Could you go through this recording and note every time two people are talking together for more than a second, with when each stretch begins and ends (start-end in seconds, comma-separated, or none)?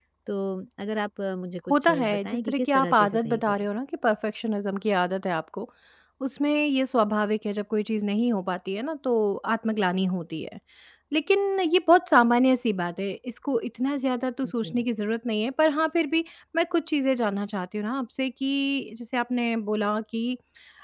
1.7-3.6